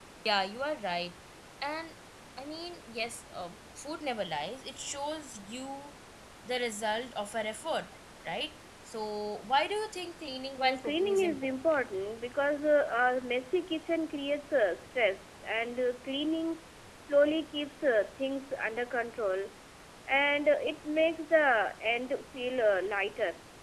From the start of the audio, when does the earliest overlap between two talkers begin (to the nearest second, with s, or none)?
11 s